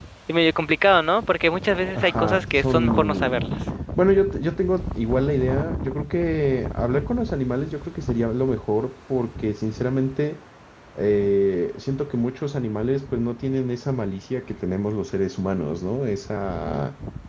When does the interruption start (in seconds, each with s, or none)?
1.9 s